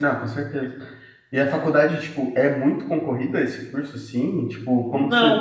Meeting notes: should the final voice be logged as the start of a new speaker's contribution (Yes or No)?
Yes